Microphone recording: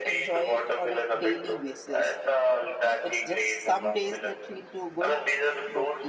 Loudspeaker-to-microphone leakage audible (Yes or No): Yes